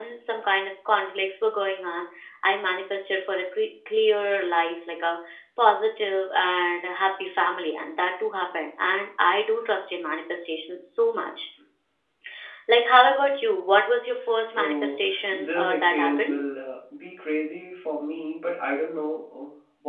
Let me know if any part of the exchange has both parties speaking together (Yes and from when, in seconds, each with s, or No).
Yes, from 14.5 s